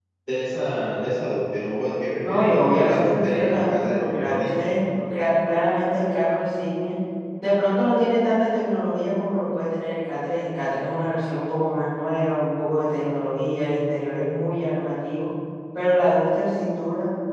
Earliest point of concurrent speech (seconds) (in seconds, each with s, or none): 2.2 s